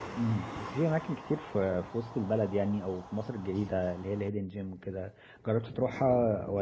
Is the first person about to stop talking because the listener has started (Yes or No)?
No